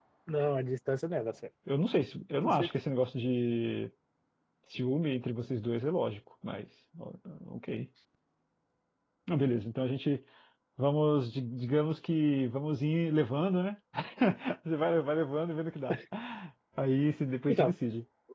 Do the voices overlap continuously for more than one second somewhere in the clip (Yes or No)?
No